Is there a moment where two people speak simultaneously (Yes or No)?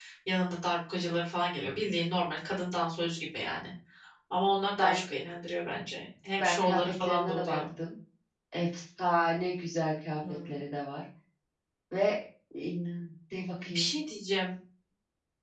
Yes